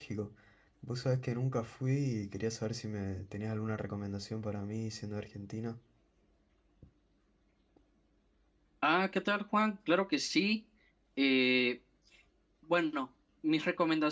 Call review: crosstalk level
none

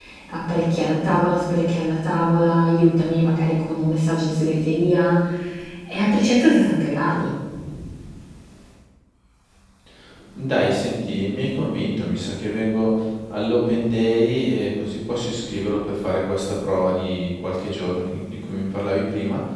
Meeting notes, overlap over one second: none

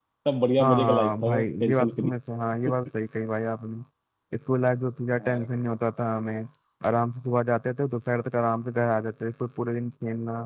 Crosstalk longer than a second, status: present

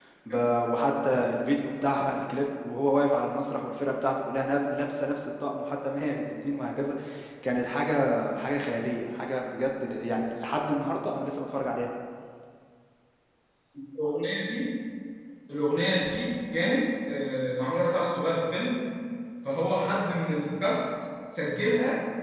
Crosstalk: none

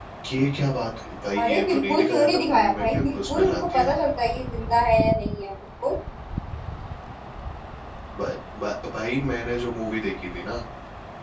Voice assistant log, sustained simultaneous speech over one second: present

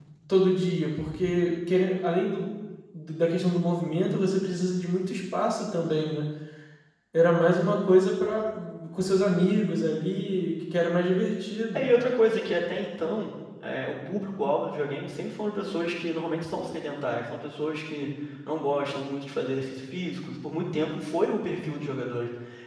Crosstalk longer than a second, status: none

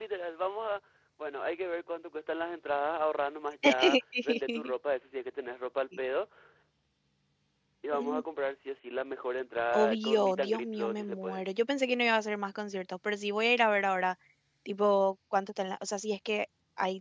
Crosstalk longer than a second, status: present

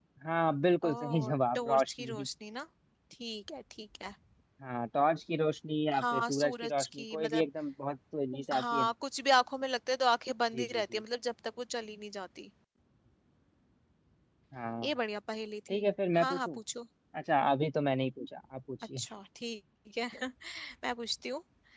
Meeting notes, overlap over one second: present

